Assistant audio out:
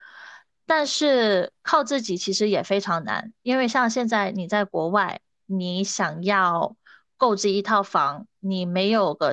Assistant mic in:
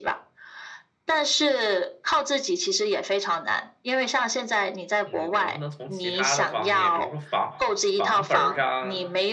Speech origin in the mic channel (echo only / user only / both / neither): both